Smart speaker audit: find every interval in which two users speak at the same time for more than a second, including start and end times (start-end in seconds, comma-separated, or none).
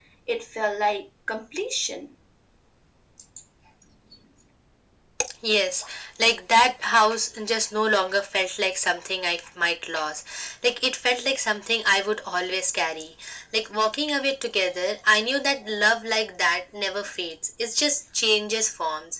none